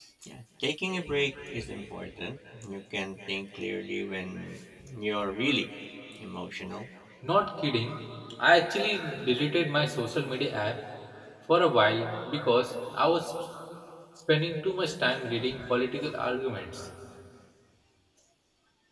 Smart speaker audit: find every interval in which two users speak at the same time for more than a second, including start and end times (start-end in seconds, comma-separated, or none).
none